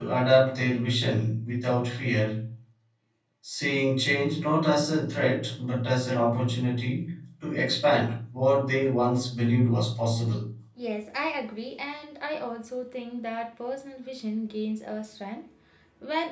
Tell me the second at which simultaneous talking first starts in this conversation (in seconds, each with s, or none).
none